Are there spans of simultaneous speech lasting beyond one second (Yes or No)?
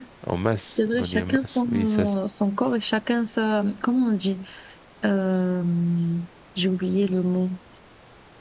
Yes